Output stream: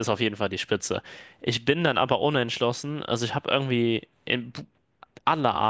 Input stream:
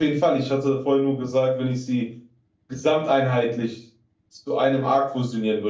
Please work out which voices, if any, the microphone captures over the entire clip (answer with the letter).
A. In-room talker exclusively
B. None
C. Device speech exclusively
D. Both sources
A